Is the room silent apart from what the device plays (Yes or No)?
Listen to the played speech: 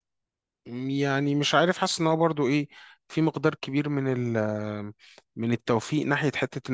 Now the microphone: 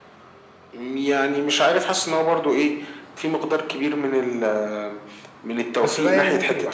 No